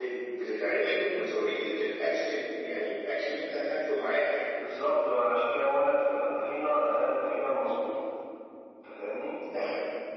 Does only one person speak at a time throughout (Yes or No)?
Yes